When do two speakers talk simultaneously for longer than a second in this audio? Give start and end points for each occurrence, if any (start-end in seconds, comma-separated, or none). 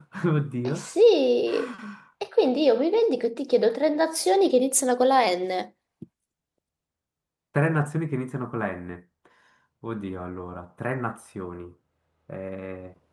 none